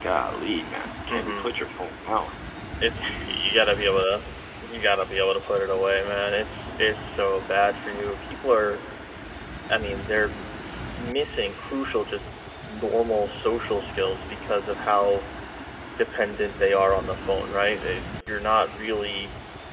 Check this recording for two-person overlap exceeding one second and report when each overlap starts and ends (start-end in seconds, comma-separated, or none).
none